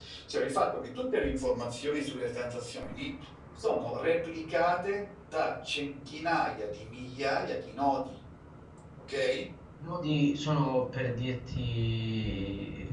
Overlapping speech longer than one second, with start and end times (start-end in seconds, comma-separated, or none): none